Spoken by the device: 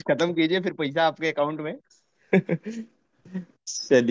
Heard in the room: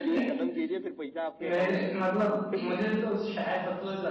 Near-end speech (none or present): present